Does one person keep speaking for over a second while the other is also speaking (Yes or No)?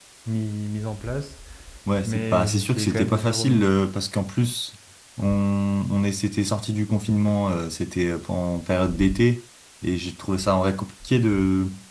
Yes